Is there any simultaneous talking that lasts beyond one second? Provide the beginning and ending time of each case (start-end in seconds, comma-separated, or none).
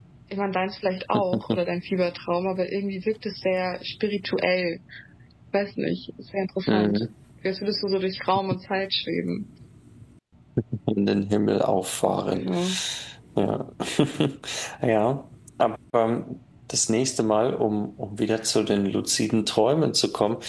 none